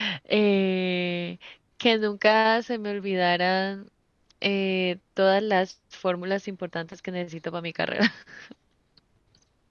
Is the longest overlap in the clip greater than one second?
No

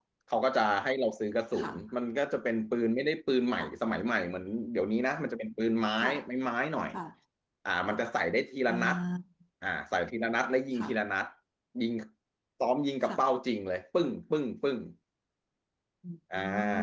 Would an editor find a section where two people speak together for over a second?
No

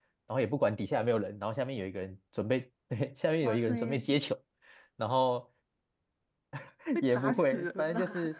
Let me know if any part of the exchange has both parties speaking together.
Yes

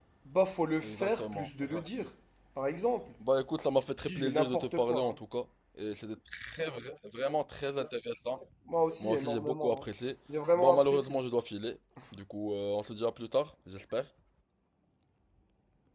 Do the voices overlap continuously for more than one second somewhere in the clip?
Yes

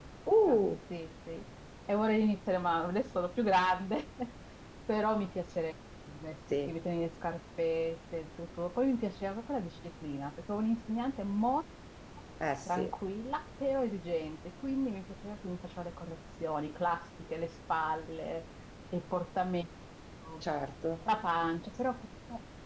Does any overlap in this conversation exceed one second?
No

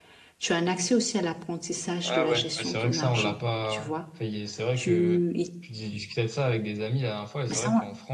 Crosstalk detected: Yes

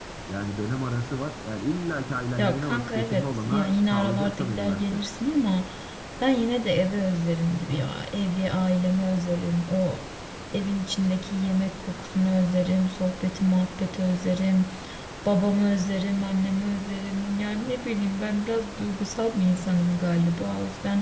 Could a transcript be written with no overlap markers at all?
No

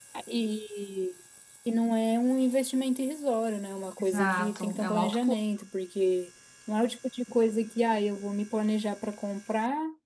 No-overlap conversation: No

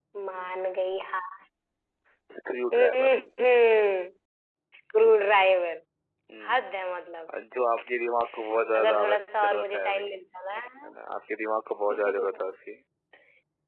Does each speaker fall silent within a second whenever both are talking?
No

